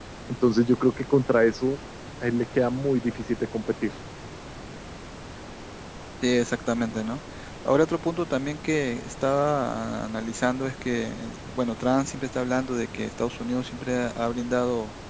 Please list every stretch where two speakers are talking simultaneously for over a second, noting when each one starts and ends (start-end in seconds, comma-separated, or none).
none